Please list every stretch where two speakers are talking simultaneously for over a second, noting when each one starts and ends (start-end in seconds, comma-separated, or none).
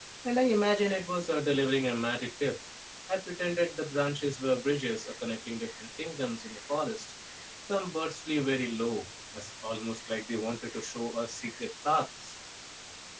none